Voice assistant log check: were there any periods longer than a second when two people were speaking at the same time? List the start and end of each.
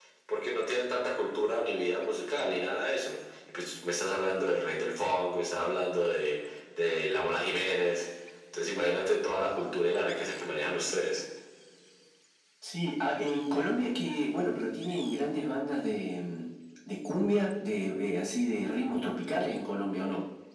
none

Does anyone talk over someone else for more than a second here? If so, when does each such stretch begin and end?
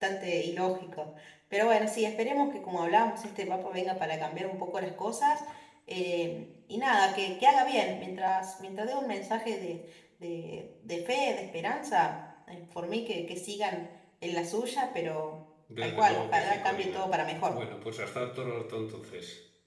15.8-17.0

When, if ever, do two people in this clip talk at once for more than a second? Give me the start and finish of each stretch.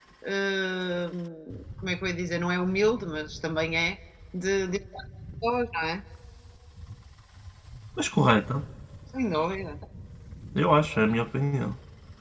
none

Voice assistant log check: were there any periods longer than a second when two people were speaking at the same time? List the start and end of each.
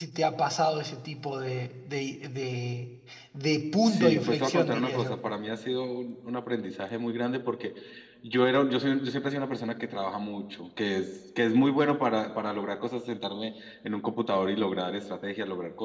3.8-5.2

